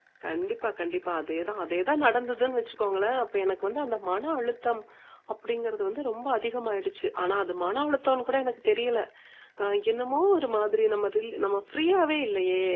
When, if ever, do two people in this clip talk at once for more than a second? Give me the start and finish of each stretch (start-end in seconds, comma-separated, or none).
none